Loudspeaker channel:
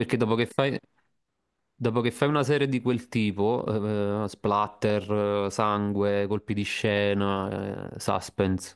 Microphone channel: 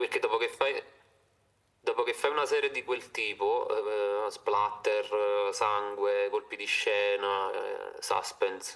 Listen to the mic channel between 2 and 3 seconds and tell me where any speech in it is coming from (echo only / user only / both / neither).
echo only